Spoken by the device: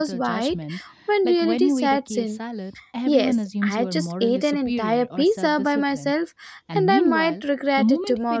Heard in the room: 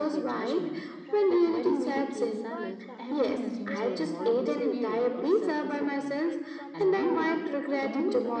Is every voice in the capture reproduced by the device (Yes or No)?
No